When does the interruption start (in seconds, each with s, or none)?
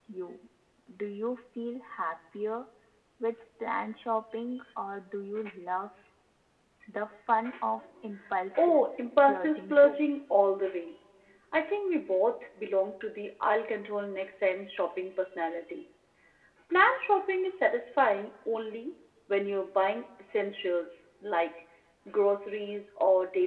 8.6 s